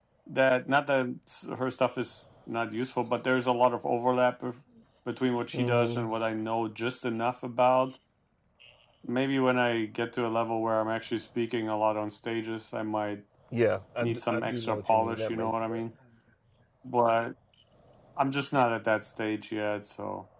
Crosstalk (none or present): present